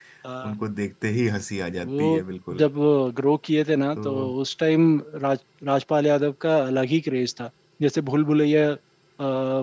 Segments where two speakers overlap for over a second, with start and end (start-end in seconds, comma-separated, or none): none